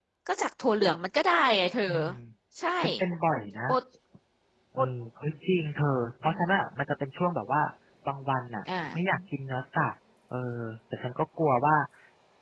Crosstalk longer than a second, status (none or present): none